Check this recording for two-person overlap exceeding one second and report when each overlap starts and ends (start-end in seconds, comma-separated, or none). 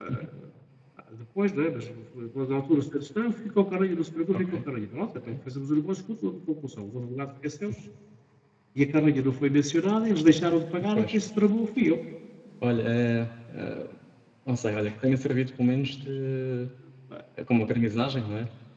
none